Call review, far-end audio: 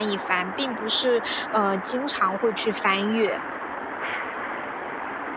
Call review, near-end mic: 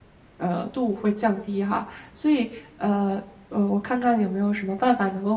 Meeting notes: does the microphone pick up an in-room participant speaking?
Yes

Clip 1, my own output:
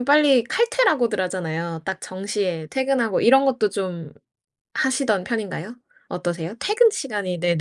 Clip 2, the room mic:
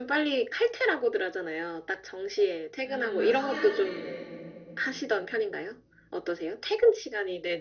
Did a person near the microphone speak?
Yes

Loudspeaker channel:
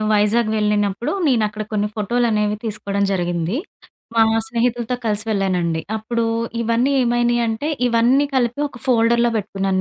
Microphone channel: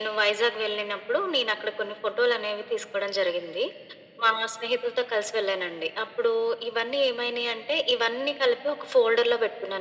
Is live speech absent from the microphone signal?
Yes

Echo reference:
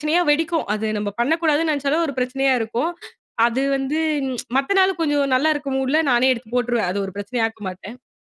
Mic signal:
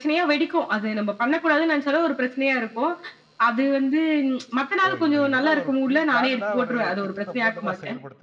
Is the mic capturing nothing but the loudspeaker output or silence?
No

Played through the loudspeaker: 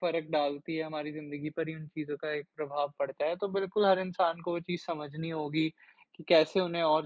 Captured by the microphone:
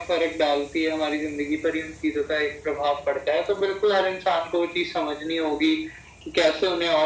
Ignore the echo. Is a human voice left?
No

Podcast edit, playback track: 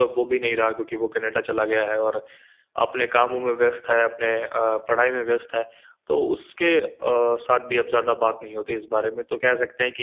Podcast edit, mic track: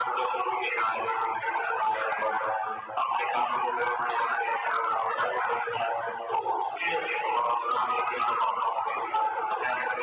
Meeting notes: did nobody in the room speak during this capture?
Yes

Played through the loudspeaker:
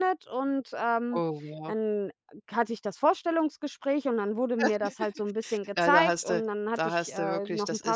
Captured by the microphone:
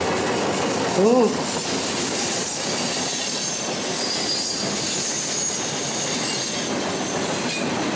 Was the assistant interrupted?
Yes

